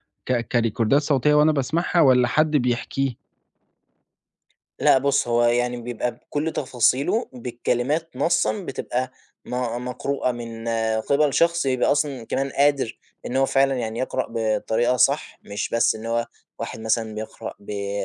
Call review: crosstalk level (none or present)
none